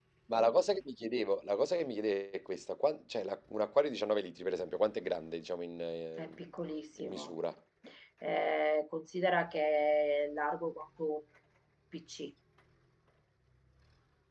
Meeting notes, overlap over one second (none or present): none